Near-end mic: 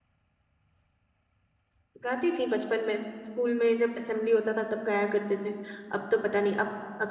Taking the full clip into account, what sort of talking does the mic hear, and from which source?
user only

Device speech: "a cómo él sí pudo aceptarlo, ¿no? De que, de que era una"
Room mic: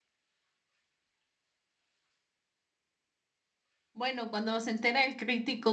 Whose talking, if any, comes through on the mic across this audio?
user only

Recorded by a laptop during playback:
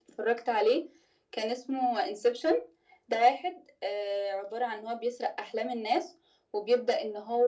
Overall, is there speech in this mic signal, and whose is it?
echo only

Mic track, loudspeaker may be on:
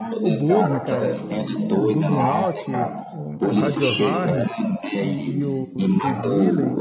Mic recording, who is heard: both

